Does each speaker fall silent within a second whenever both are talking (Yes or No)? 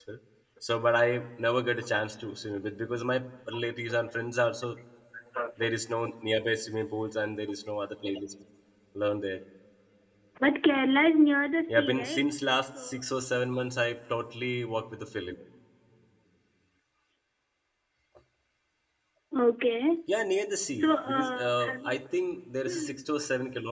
No